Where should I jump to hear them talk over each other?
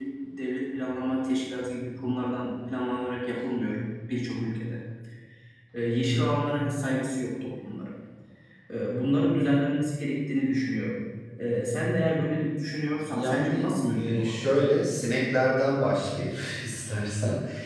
13.0 s

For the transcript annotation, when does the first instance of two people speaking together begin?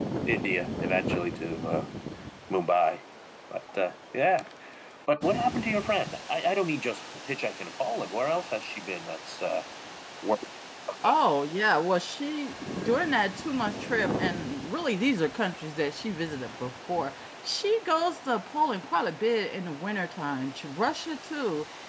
none

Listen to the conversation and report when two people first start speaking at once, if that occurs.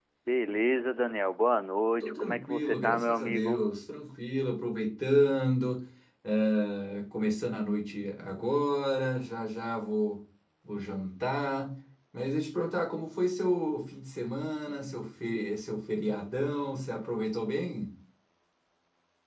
2.0 s

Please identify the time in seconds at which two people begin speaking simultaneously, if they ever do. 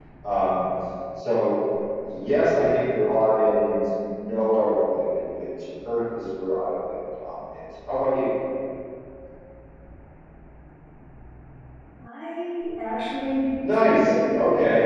13.6 s

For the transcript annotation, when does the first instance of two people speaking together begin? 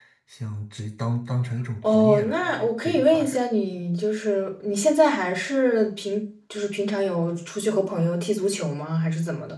1.8 s

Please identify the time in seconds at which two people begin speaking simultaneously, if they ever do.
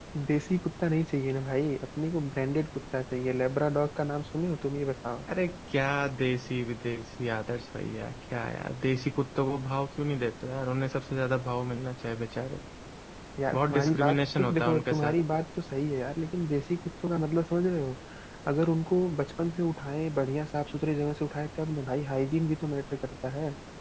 13.5 s

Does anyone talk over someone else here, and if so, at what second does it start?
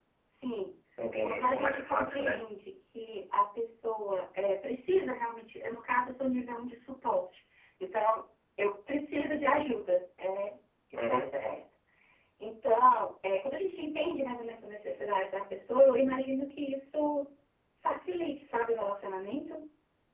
1.2 s

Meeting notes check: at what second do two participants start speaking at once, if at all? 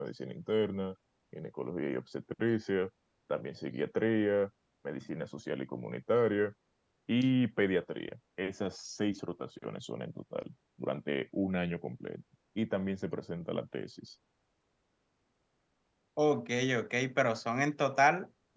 none

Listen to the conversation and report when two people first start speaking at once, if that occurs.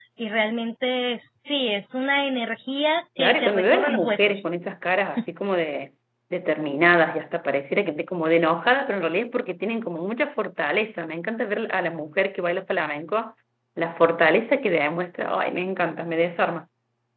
3.2 s

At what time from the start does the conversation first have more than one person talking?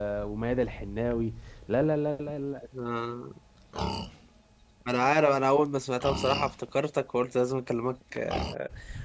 none

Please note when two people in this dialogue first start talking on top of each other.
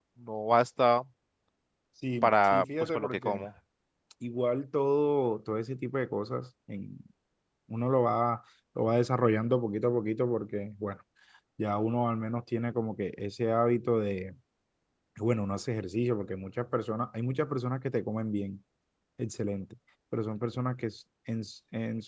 2.2 s

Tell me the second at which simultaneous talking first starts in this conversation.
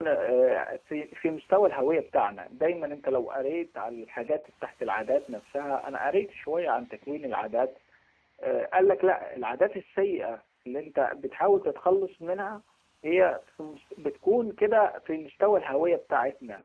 none

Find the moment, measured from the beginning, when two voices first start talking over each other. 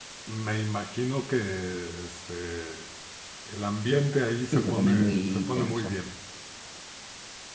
4.5 s

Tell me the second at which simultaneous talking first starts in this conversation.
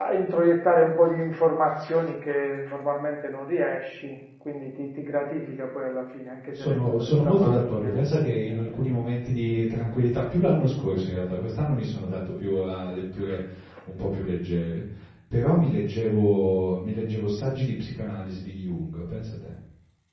6.5 s

